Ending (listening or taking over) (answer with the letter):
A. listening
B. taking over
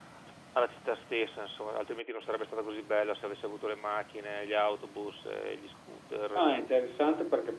B